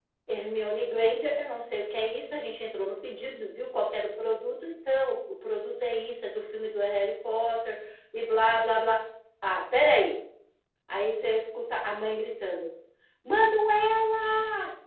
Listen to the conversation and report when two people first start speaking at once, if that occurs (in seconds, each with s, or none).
none